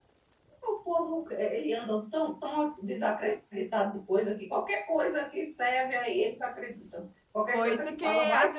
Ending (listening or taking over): taking over